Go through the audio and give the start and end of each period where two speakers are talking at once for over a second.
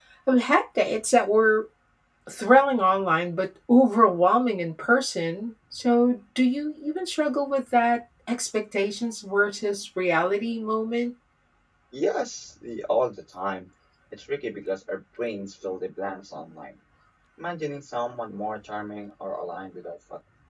none

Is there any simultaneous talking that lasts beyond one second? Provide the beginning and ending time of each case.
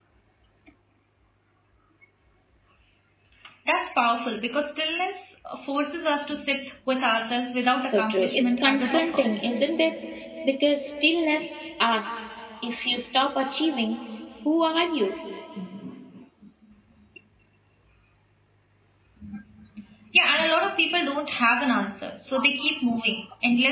7.9-9.3

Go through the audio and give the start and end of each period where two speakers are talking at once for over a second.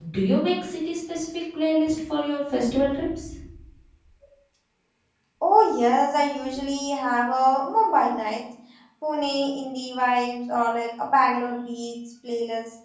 none

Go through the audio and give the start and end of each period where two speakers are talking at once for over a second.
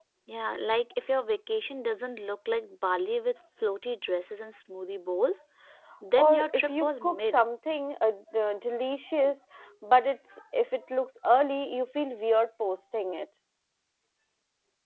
6.2-7.4

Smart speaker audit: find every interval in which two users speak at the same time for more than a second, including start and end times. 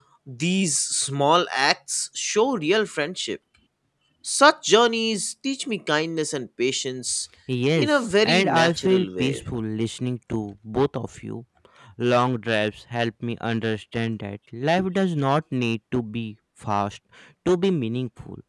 7.8-9.4

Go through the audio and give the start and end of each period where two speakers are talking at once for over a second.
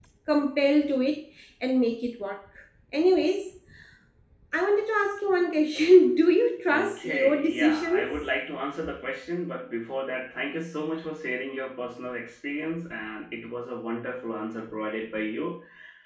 6.7-8.3

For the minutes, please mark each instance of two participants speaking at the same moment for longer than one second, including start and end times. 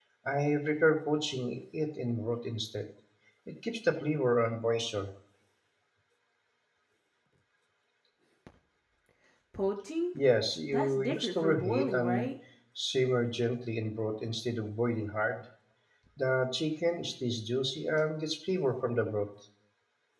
10.7-12.3

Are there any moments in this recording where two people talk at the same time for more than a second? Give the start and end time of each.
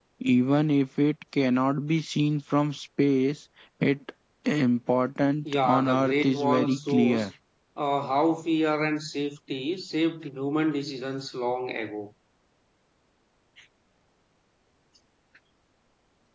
5.6-7.3

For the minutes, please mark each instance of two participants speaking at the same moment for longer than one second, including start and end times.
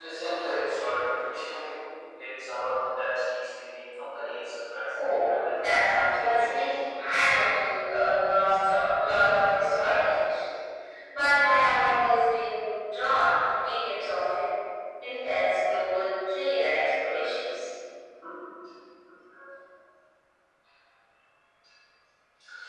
5.0-6.8

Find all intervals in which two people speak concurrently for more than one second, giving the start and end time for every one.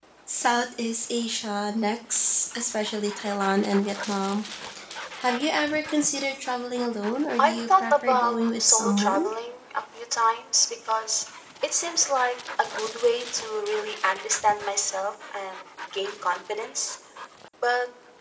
7.4-9.3

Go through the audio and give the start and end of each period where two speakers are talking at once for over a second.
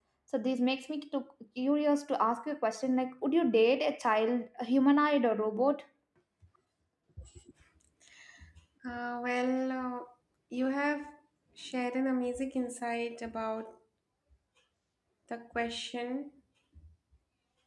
none

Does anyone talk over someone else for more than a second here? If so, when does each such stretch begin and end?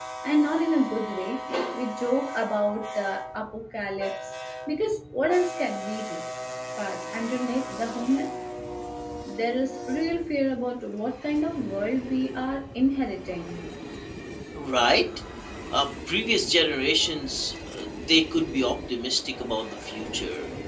none

